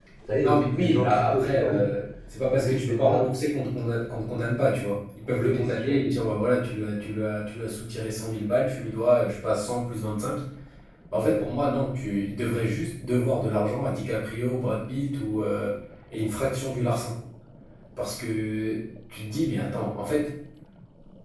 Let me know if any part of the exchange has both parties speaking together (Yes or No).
Yes